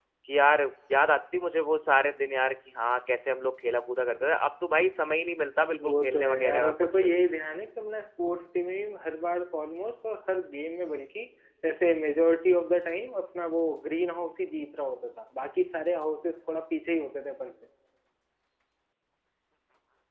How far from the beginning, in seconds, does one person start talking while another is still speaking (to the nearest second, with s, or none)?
6 s